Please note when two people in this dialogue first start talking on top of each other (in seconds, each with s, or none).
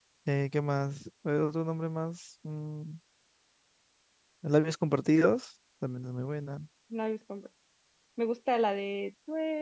none